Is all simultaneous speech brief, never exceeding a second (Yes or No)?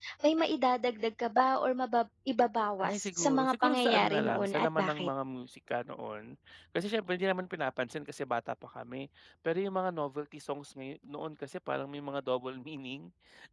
No